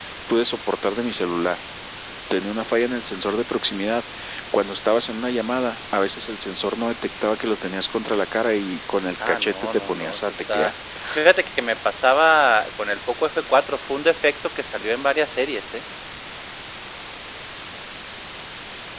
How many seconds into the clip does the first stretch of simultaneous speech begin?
9 s

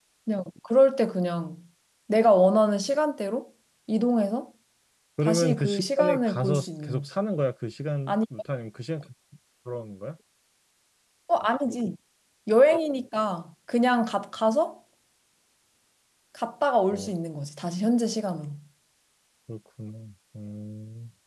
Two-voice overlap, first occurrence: 5 s

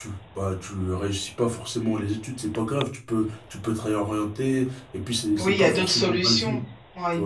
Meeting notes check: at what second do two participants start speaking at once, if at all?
5 s

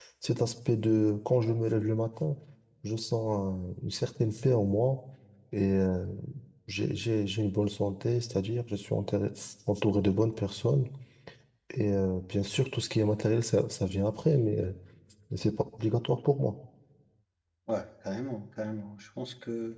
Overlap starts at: none

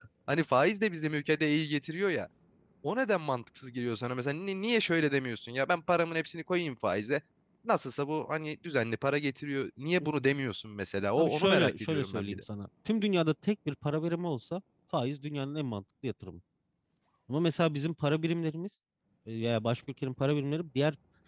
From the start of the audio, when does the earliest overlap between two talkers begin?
11 s

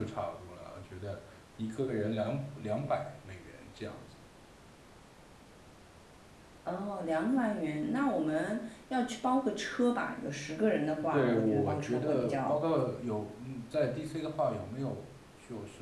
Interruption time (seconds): 11 s

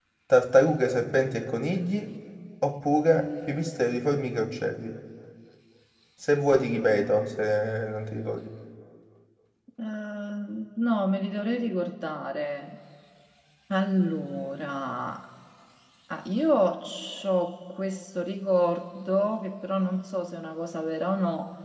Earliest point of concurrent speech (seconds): none

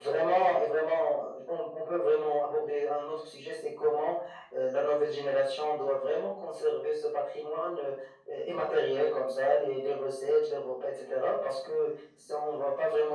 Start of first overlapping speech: none

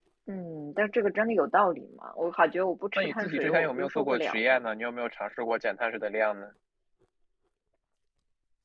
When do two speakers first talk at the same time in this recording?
3 s

